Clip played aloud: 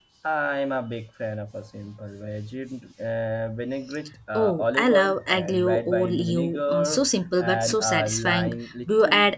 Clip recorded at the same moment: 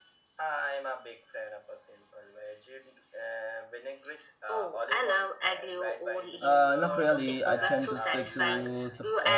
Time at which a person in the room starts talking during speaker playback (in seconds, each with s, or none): 6.4 s